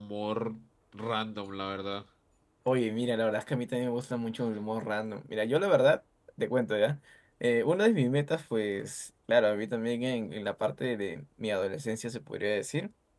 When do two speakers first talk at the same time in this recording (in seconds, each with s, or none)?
none